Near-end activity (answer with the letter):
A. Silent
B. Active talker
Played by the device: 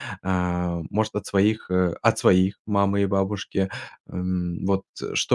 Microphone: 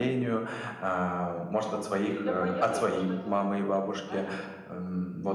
B